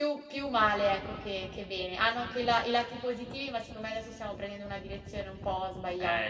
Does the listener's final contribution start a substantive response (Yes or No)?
Yes